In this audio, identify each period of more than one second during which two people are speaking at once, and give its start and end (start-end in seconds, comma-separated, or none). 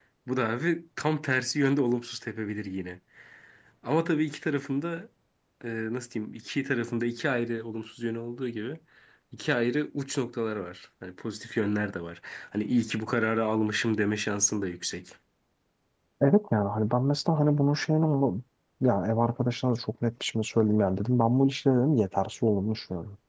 none